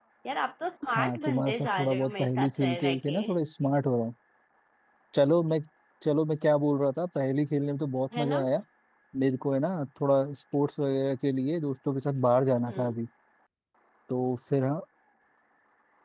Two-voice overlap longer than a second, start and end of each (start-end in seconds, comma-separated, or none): 1.0-3.2